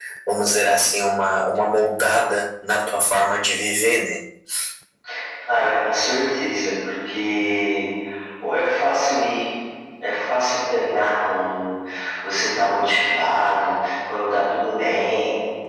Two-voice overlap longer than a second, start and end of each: none

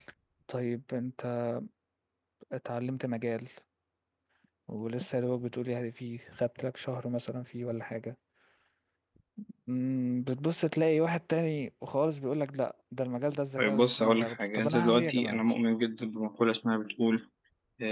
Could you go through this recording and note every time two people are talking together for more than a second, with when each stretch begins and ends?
13.6-15.4

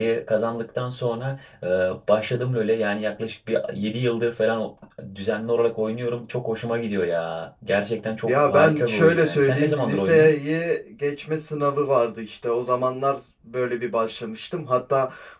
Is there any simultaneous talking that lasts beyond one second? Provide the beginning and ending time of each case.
8.3-10.3

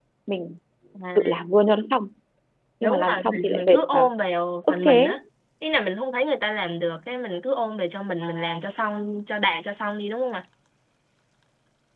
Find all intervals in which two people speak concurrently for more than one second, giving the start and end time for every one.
2.8-4.1

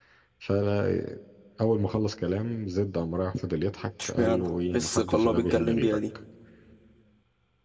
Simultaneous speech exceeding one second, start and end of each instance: 4.0-6.0

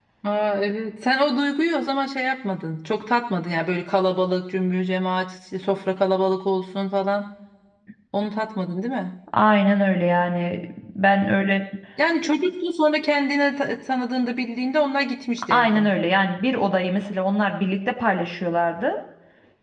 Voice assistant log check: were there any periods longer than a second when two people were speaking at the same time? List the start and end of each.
none

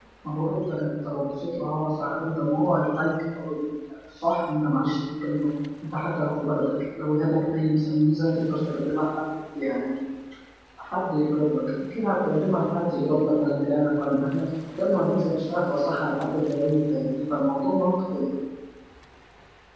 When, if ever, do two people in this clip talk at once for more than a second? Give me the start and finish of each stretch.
none

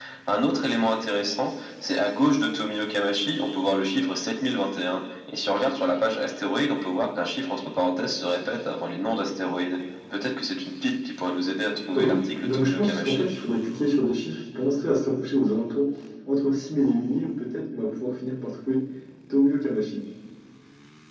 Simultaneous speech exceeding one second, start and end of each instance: 11.9-13.2

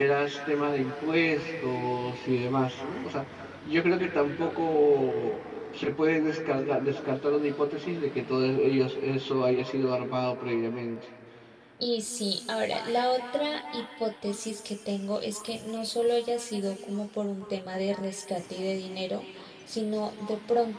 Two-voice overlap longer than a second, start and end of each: none

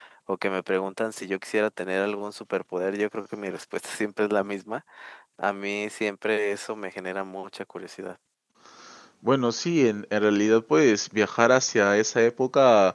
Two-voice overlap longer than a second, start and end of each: none

